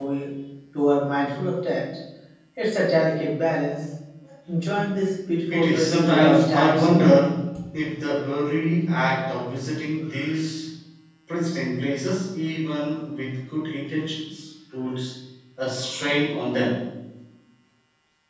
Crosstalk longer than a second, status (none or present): present